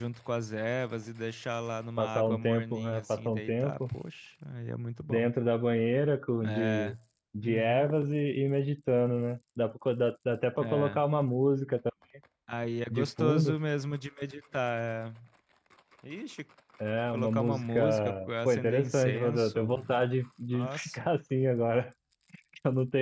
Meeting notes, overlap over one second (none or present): present